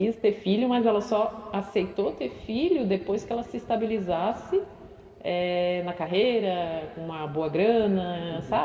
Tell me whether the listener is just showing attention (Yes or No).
No